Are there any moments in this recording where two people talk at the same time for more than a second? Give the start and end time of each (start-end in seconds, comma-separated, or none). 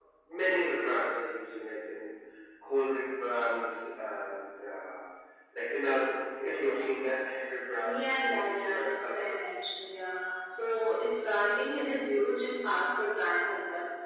7.8-9.3